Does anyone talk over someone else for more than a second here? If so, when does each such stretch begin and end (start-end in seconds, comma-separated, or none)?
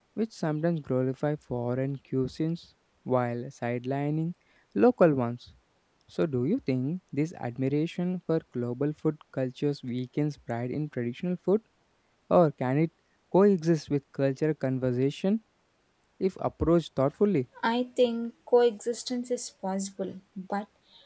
none